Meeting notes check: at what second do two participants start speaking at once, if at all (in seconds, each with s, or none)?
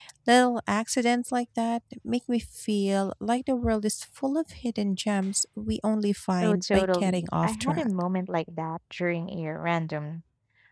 6.4 s